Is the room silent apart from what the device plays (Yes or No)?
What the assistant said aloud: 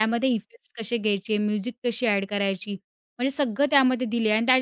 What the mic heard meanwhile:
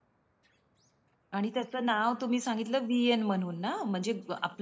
No